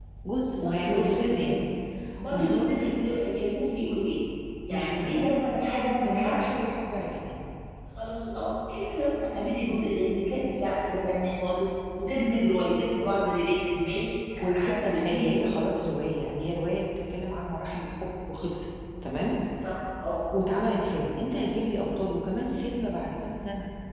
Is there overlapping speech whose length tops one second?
Yes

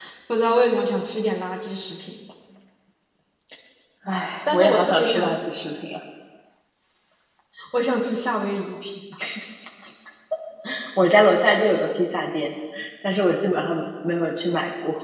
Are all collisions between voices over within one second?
No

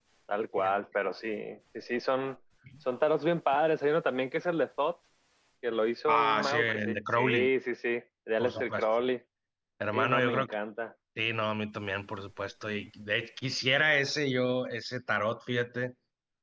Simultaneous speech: Yes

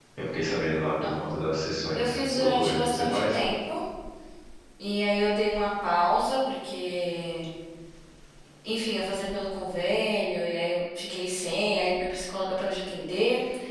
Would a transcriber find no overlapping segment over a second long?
No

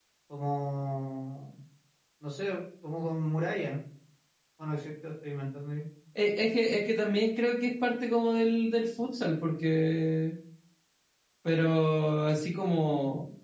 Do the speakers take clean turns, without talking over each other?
Yes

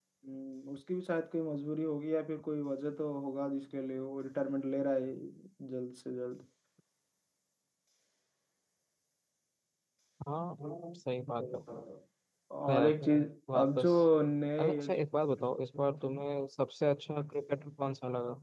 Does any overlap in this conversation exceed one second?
No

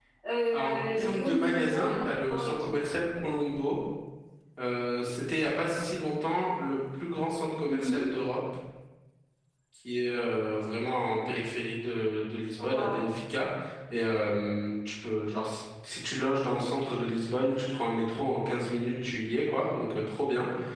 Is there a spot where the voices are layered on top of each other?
Yes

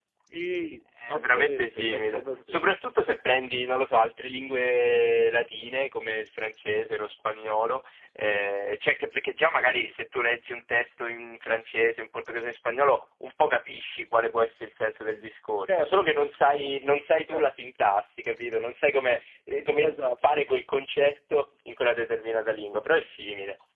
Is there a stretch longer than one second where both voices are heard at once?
Yes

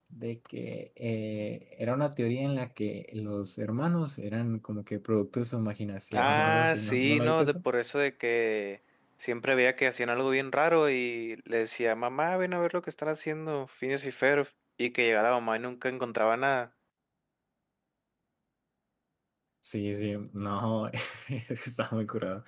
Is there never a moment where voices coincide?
No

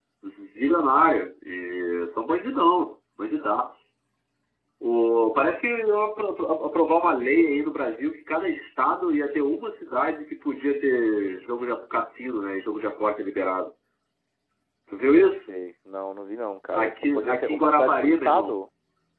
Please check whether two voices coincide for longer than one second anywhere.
Yes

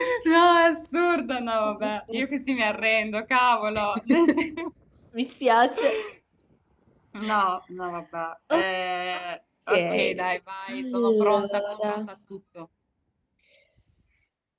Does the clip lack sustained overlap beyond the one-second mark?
No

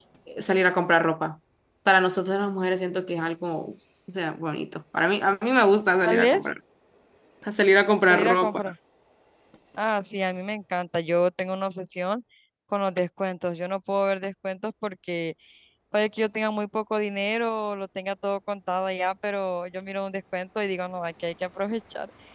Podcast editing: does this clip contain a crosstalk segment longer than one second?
No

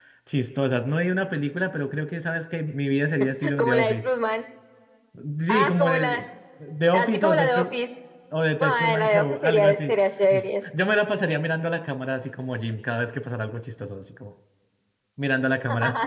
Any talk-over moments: Yes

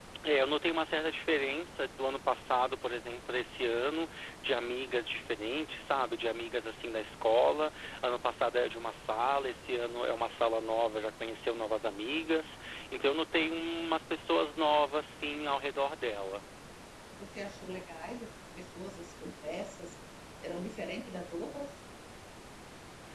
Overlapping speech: No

